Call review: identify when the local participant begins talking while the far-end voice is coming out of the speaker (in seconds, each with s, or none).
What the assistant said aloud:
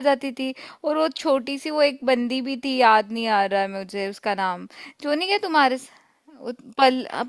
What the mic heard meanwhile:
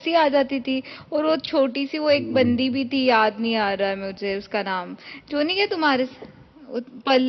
2.2 s